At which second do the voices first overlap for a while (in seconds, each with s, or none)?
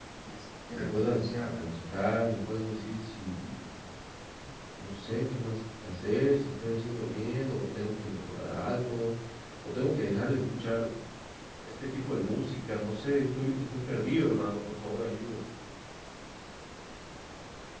0.7 s